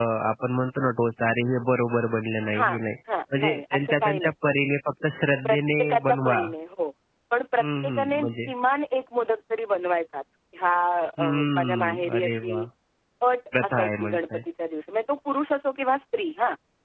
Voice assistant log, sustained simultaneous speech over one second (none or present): present